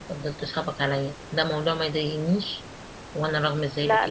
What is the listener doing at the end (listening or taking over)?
taking over